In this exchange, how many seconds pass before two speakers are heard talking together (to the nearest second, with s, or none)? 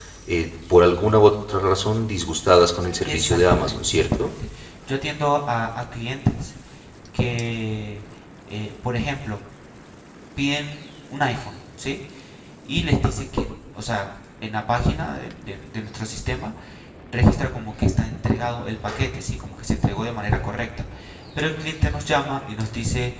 3 s